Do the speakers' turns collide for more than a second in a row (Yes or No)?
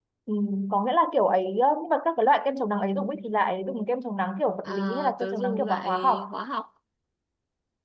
Yes